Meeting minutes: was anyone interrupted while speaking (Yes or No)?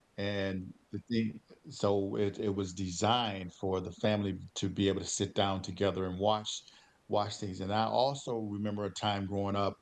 No